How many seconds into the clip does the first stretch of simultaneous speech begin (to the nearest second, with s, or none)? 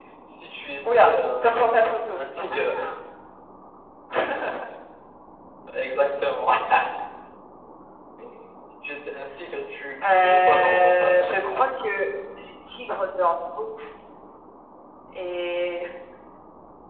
1 s